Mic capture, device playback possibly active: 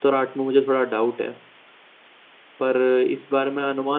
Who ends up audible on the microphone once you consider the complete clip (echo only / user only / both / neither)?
user only